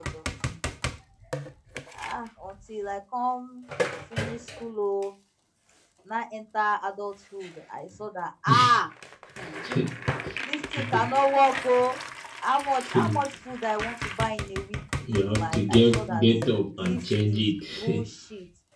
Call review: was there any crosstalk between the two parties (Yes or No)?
Yes